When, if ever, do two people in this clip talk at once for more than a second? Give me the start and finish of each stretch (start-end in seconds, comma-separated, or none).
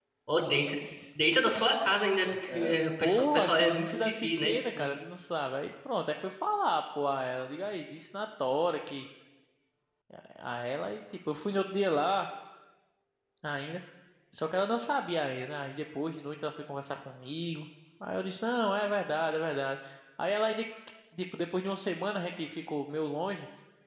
2.5-4.9